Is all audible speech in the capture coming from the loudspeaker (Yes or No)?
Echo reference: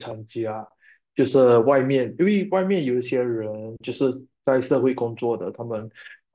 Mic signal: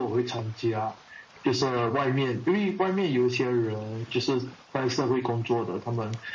Yes